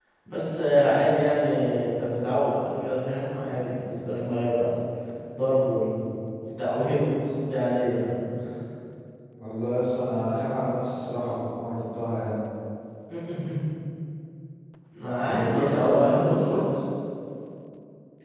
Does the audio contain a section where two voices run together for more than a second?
Yes, from 15.3 s

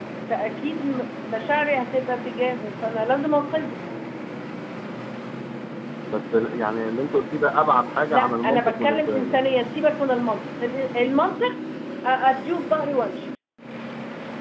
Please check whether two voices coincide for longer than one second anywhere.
Yes, from 8.1 s

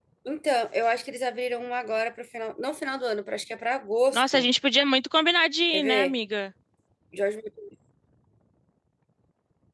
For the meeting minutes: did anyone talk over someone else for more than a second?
No

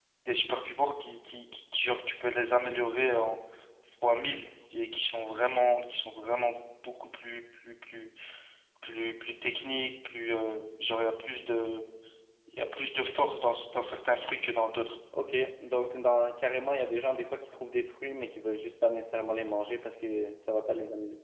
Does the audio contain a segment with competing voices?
No

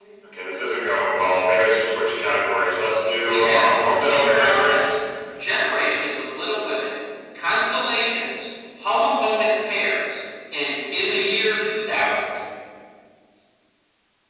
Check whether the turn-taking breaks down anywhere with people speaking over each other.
Yes, from 3.2 s

